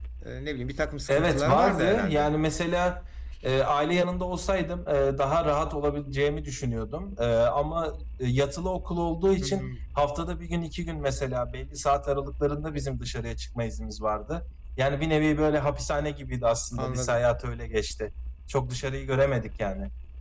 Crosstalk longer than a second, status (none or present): present